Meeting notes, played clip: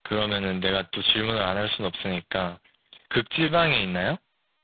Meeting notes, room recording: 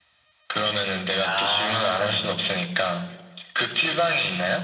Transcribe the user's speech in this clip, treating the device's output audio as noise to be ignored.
아,

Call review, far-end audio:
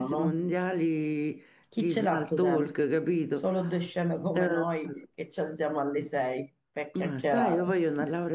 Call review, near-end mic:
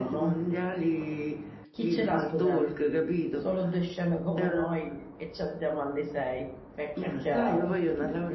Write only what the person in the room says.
none

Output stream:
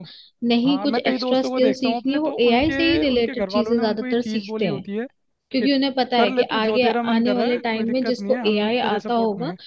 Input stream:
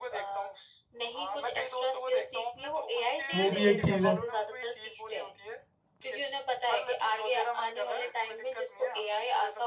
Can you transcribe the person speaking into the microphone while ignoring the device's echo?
वो भी एक चीज़ है

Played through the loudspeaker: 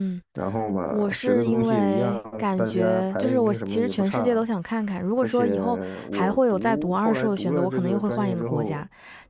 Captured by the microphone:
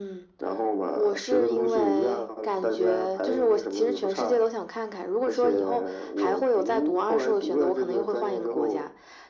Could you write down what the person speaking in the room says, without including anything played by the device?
none

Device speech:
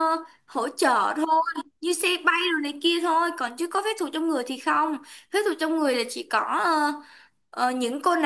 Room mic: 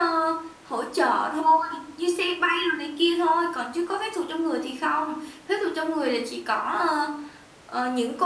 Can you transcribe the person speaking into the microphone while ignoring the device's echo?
none

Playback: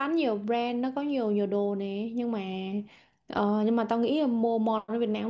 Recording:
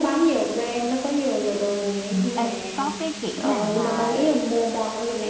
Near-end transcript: Ừ, ê, có cái kiểu nào mà

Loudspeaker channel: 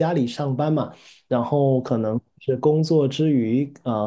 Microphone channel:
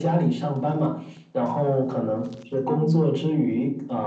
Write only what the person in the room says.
嗯，

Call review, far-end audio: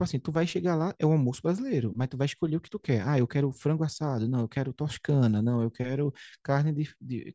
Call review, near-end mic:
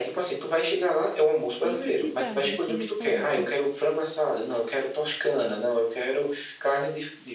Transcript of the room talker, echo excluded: É em que cidade esse restaurante?

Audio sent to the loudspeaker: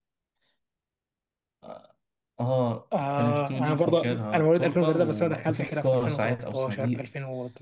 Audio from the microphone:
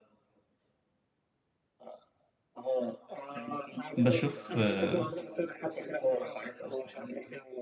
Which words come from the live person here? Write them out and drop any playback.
بشوف آه،

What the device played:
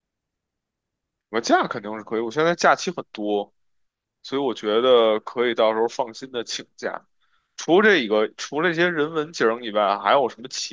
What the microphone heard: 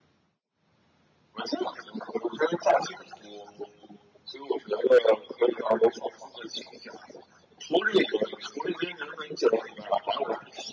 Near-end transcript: none

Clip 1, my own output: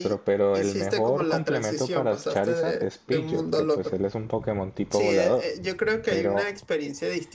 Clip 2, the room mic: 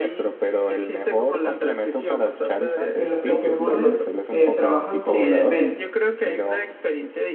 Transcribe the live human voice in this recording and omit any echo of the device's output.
que los Pokémones eh, trabajan con elementos,

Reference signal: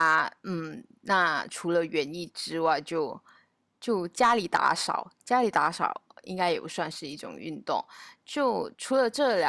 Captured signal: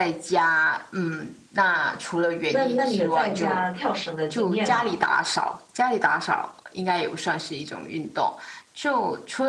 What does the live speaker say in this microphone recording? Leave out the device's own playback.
那那你有在家跳绳的经验吗？

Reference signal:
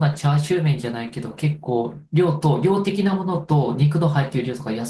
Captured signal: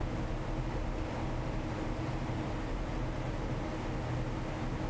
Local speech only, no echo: none

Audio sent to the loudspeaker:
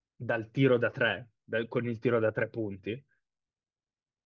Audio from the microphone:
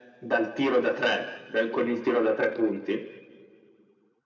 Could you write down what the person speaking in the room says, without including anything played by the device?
none

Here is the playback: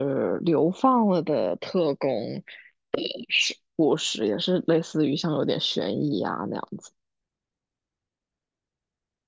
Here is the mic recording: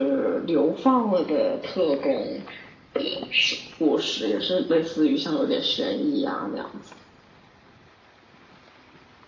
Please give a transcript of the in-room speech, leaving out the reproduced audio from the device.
none

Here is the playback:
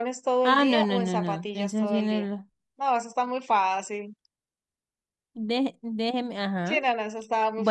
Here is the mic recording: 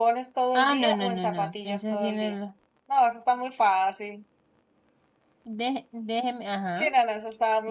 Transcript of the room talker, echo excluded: none

